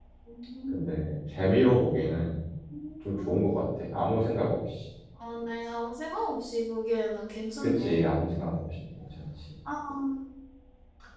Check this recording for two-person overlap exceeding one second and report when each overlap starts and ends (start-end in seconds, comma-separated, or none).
none